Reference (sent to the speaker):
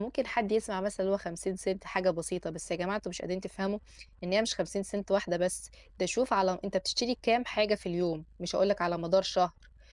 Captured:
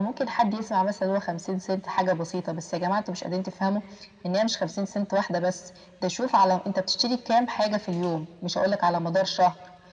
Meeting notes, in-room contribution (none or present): none